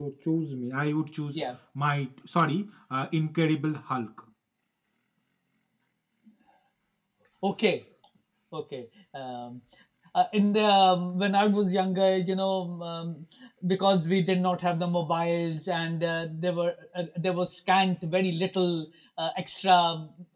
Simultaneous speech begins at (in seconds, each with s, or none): none